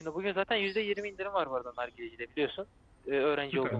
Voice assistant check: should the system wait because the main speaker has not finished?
No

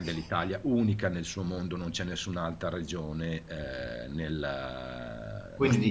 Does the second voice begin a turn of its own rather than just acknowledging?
No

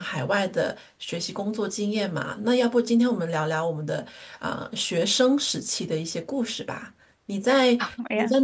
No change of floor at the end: Yes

